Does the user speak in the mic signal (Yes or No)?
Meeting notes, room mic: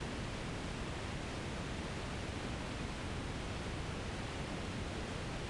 No